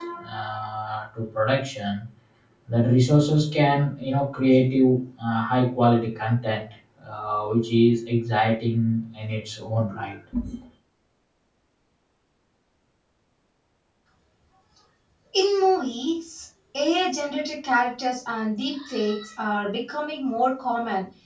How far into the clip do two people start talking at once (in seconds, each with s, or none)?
none